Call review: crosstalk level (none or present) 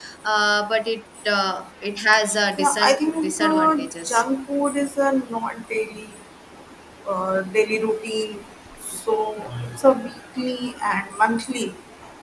present